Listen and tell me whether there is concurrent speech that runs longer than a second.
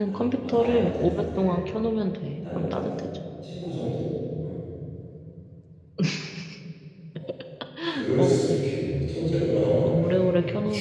Yes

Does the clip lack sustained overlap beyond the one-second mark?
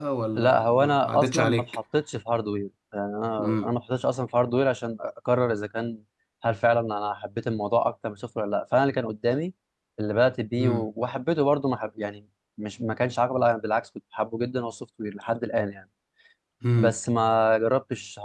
No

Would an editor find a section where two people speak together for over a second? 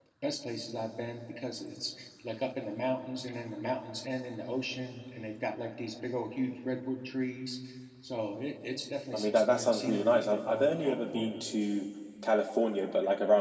Yes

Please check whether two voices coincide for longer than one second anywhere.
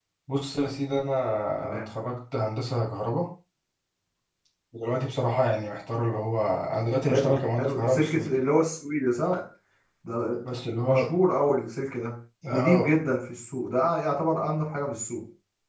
Yes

